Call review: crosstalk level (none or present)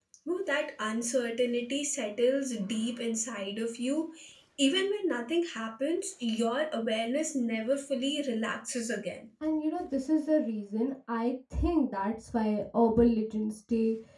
none